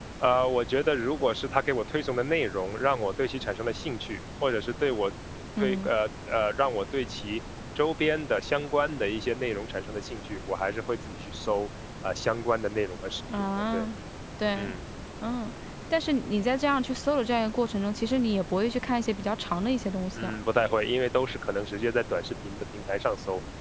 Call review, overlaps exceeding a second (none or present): none